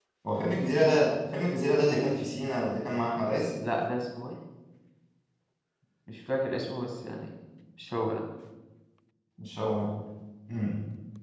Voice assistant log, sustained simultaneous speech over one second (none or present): none